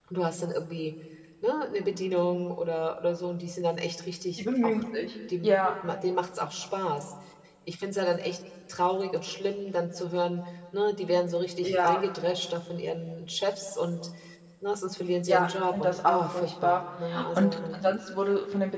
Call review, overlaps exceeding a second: present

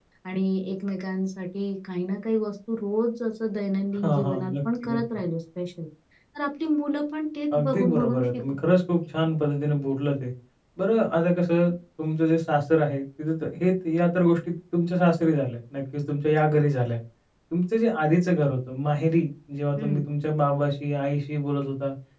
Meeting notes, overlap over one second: present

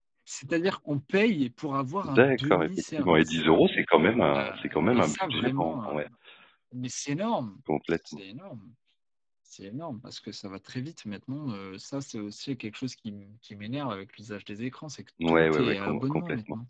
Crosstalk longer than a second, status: present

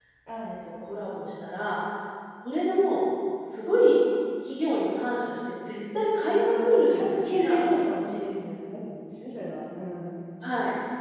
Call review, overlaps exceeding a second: present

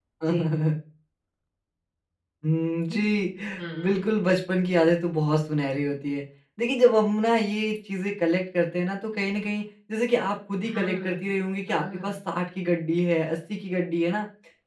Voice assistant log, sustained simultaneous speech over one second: none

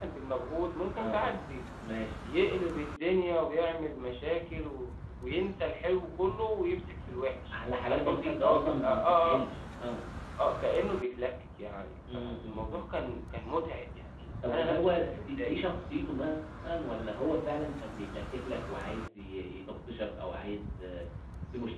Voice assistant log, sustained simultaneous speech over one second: present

